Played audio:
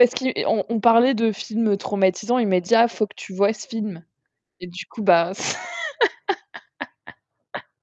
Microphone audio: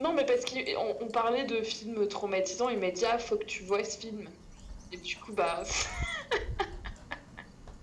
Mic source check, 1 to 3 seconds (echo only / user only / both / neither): echo only